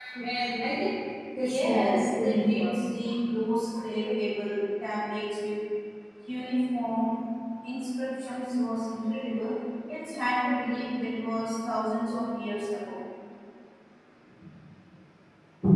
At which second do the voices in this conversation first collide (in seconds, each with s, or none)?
1.4 s